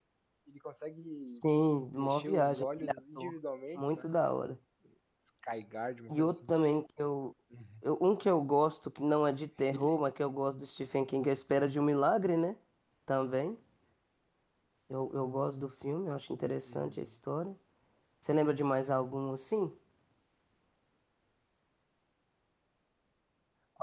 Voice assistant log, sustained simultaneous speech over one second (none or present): present